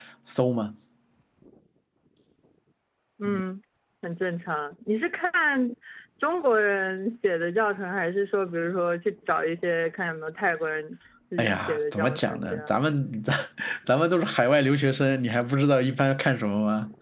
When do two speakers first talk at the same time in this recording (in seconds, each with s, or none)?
11.4 s